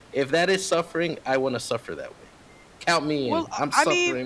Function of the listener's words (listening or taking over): taking over